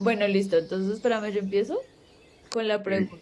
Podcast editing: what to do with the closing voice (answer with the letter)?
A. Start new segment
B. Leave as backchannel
B